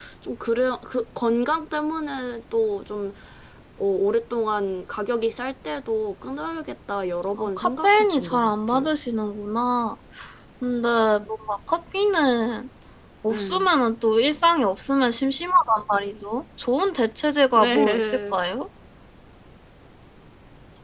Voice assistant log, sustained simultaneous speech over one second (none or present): present